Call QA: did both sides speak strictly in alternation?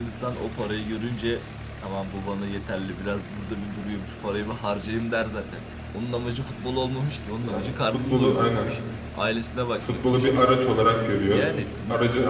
No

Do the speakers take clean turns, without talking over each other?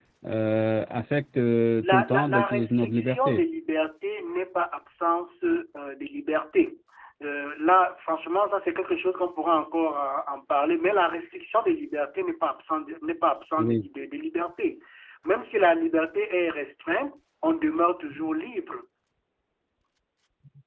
No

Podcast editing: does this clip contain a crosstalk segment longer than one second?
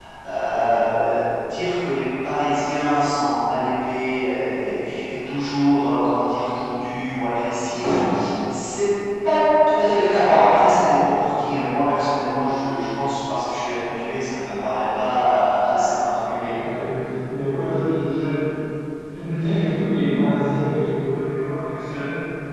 No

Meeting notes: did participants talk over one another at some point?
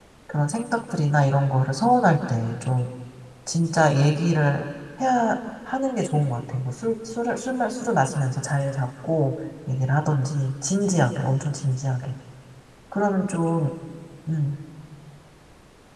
No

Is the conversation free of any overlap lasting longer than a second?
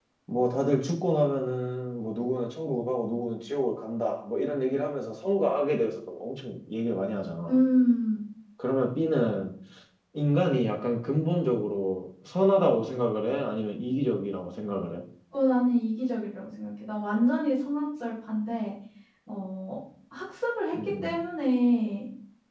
Yes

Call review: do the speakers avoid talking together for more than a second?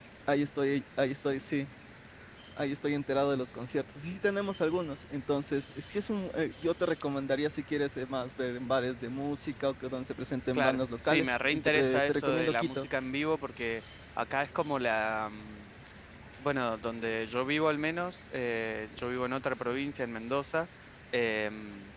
No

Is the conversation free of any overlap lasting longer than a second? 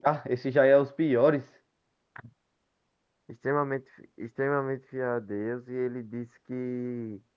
Yes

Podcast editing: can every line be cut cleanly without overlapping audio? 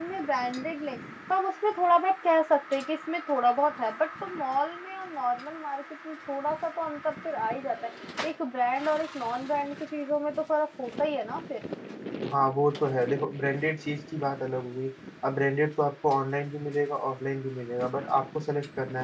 Yes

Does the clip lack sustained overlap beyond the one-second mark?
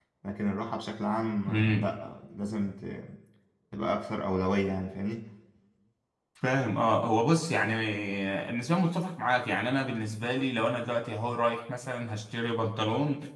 Yes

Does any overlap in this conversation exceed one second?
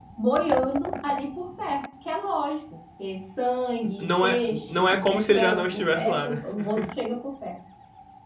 Yes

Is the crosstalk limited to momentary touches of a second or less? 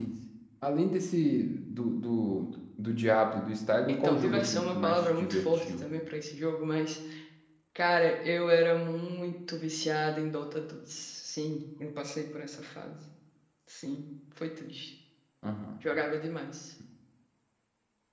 No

